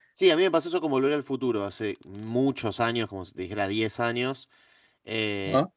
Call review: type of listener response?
listening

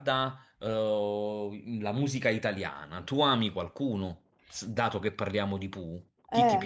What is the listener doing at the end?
taking over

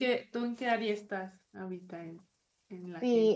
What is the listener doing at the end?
taking over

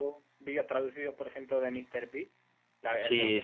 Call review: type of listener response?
taking over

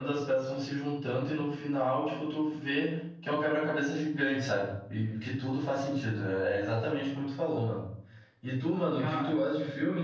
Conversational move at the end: listening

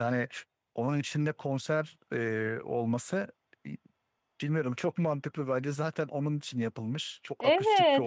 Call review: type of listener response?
taking over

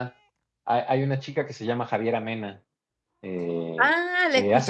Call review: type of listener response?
taking over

